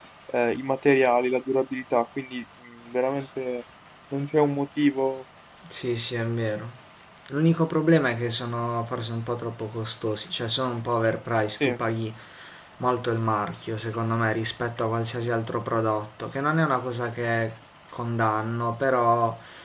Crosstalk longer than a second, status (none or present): none